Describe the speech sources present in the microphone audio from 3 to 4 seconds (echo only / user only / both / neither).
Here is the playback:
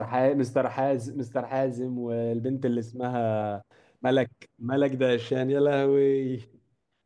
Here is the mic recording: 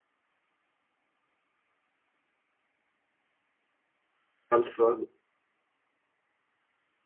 neither